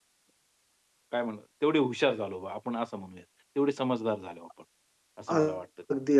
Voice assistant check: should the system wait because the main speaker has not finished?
No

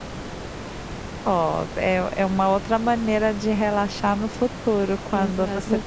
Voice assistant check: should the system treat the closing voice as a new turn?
Yes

